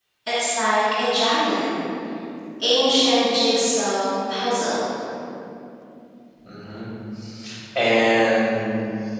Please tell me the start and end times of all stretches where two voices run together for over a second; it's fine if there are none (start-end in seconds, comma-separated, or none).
none